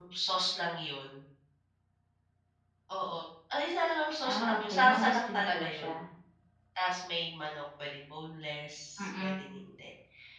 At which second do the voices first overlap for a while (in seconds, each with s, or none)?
4.3 s